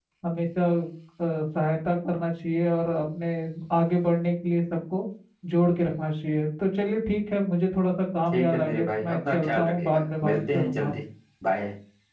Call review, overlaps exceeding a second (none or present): present